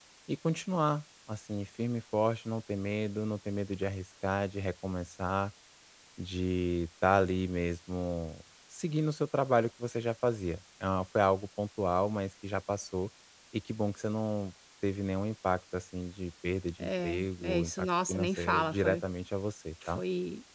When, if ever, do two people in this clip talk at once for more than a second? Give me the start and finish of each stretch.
16.8-19.0

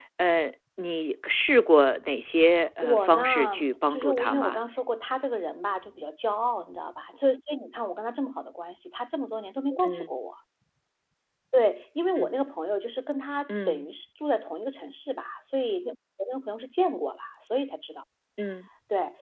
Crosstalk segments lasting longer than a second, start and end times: 2.8-4.6

